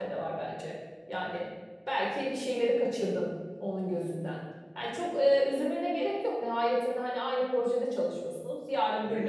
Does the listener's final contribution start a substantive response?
No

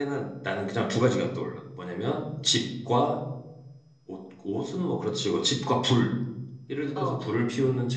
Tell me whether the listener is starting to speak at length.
No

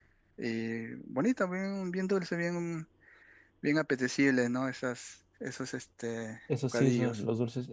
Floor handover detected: Yes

